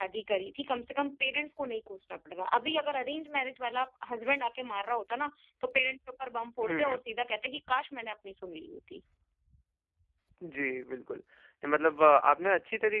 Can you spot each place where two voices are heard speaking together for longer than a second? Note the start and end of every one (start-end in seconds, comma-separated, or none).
none